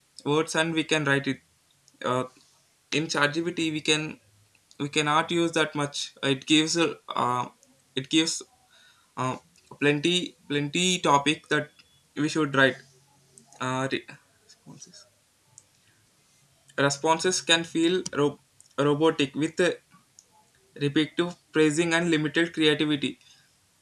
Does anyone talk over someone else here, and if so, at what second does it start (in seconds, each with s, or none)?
none